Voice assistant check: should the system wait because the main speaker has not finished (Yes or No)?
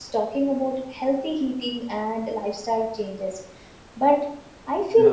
Yes